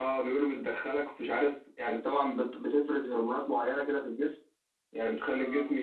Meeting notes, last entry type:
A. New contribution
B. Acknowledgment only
B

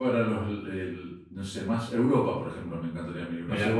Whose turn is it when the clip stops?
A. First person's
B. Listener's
A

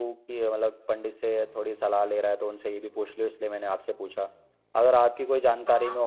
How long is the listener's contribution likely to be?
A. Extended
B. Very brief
B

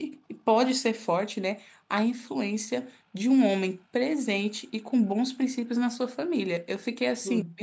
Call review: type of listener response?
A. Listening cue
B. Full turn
A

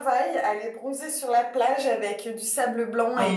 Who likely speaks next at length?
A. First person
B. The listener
A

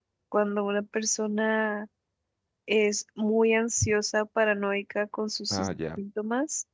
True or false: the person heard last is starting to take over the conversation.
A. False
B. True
A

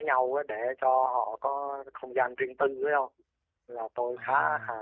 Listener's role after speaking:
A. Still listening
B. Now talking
A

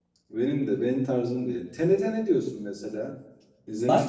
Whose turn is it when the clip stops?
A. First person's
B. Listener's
B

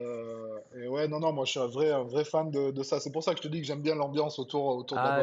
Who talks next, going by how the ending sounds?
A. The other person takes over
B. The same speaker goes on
A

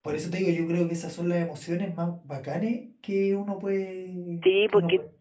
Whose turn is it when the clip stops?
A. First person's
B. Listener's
B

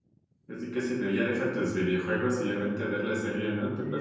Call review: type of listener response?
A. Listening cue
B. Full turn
B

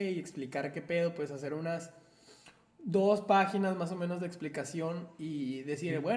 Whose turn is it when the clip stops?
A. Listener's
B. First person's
B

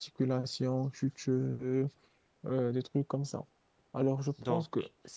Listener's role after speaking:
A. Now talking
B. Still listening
B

